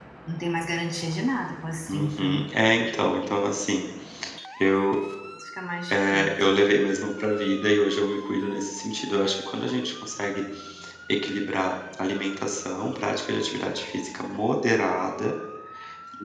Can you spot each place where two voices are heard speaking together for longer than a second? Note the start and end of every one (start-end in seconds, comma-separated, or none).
none